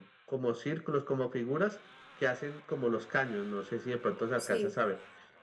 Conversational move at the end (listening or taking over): listening